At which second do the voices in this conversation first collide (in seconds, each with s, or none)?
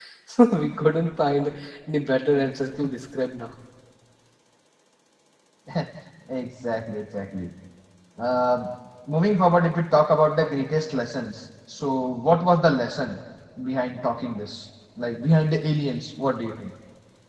none